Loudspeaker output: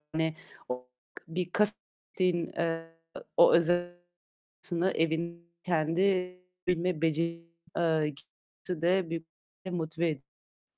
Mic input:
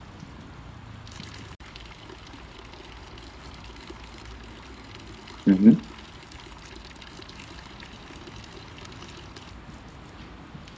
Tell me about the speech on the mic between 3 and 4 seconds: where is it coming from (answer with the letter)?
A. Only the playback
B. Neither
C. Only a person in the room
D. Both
B